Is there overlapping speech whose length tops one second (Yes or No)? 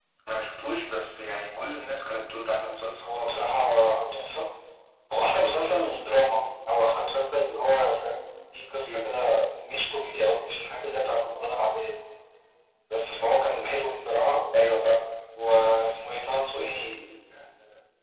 No